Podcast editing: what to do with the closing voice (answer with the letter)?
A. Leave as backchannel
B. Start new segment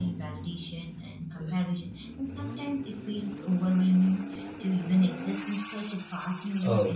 B